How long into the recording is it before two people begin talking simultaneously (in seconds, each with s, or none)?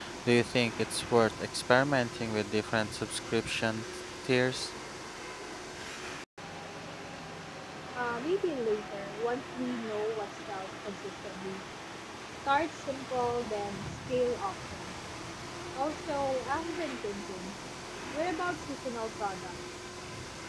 none